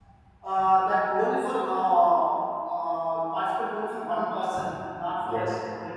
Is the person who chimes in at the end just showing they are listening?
Yes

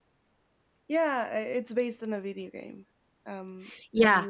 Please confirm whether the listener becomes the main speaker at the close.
Yes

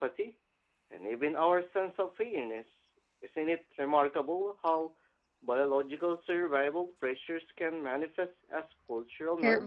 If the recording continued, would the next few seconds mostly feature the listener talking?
Yes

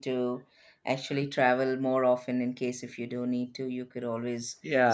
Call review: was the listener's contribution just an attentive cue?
No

